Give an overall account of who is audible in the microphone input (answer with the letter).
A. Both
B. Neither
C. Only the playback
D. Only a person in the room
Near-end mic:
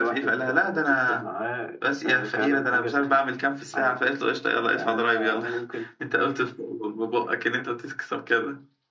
C